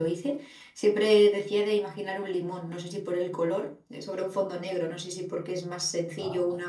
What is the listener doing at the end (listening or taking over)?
listening